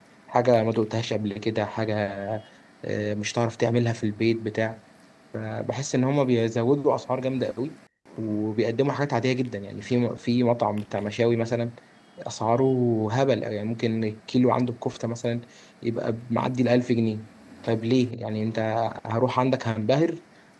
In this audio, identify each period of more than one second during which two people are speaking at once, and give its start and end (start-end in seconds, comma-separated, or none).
none